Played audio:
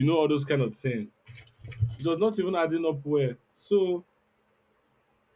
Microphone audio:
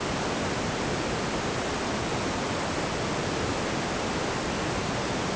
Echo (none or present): none